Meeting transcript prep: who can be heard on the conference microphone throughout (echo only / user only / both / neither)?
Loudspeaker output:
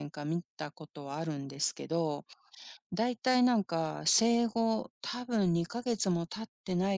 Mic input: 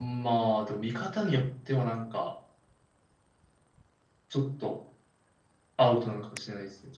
user only